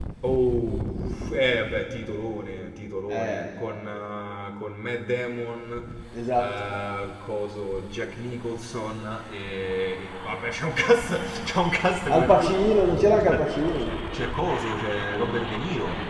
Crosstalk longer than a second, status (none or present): none